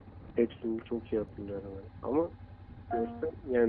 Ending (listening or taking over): listening